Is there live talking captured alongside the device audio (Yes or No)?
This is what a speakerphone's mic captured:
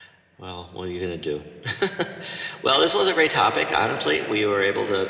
No